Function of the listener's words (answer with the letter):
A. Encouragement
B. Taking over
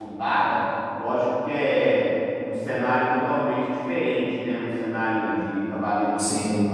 A